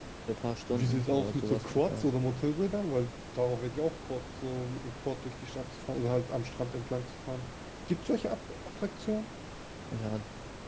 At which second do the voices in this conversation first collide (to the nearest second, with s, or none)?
1 s